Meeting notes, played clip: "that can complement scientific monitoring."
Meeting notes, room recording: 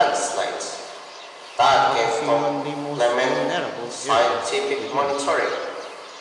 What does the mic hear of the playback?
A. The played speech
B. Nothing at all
A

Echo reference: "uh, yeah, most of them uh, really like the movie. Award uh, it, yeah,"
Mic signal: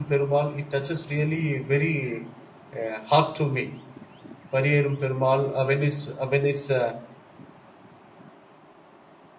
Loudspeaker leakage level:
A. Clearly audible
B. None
B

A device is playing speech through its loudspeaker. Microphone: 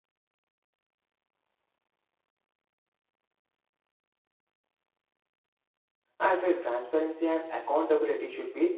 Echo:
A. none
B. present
A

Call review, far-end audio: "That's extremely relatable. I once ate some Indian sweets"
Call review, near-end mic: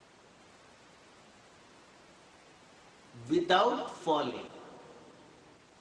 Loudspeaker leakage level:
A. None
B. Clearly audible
A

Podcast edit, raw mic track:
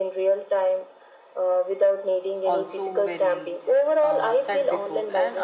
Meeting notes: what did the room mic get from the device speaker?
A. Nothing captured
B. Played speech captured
B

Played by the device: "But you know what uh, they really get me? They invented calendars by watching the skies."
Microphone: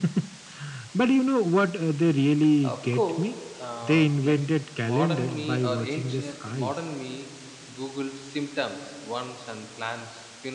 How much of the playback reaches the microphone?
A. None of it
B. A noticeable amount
B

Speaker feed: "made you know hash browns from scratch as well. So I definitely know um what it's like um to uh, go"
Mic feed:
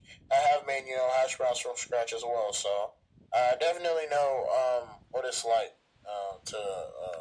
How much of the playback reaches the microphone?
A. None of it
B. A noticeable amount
B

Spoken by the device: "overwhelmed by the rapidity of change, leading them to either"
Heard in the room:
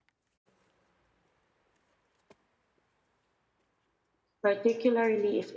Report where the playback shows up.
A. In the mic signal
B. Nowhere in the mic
B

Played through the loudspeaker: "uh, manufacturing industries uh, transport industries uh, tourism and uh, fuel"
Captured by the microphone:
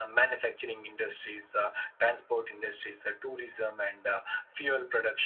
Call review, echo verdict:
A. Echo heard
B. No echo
A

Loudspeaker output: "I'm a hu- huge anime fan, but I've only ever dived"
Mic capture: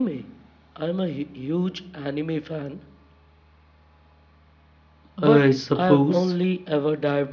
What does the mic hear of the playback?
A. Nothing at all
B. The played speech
B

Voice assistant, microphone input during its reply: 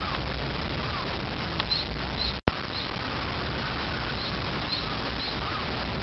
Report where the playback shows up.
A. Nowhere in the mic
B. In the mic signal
A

